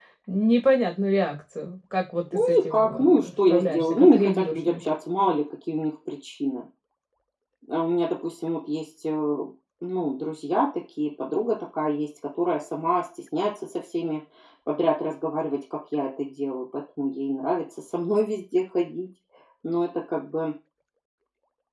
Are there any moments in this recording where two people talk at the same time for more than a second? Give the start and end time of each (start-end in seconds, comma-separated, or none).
2.3-4.8